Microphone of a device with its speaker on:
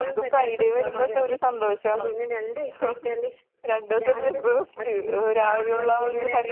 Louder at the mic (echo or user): user